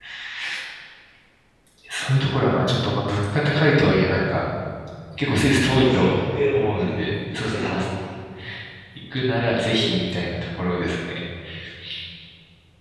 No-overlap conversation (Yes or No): No